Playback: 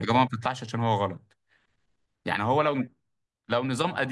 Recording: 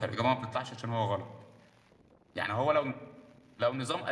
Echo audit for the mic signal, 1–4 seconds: echo only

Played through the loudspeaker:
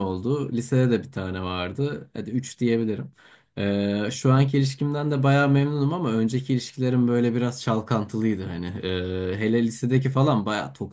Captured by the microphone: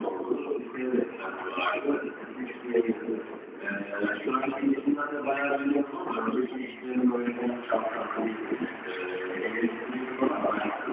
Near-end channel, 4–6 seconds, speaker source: echo only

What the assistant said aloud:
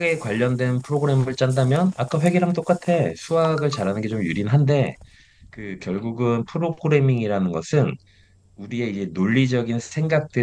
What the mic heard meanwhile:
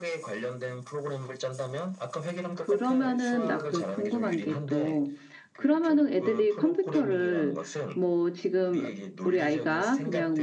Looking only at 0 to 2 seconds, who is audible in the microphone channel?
echo only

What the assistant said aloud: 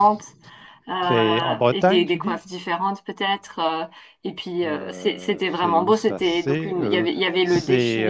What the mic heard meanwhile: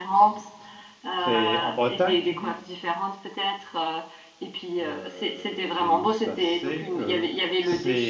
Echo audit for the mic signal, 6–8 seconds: echo only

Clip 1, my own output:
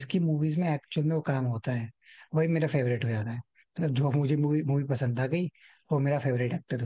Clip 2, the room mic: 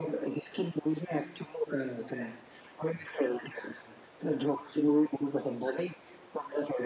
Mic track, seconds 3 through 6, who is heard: echo only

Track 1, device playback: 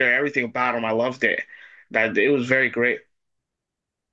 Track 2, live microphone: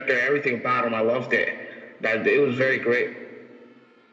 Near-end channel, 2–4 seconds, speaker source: echo only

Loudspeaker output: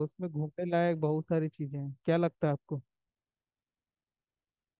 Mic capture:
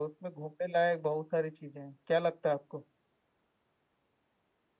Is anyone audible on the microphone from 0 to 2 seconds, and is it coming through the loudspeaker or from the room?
echo only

